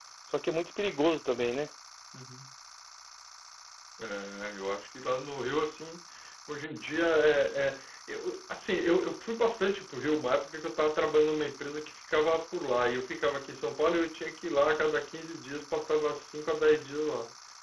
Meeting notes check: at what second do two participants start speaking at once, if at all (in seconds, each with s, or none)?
none